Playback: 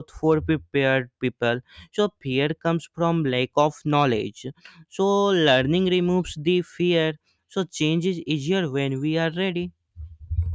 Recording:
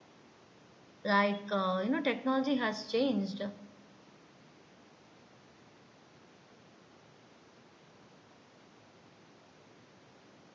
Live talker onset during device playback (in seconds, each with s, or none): 1.0 s